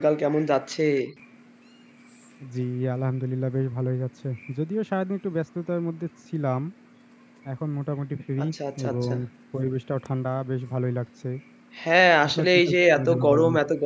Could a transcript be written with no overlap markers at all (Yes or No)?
No